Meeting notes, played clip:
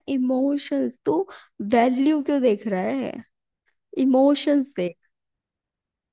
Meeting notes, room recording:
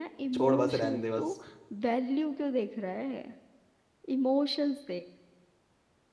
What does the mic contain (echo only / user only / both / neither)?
both